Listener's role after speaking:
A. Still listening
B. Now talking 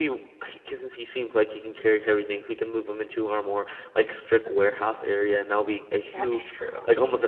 A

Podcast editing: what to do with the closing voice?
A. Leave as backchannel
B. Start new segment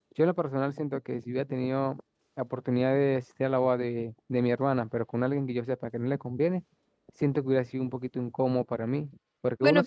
B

